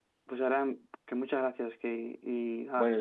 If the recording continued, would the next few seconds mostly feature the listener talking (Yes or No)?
Yes